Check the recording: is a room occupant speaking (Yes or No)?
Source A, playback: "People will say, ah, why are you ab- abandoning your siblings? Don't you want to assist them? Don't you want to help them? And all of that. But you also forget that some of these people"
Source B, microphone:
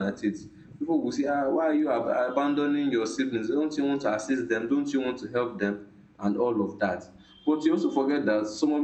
No